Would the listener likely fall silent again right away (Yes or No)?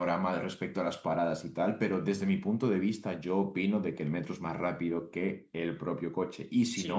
No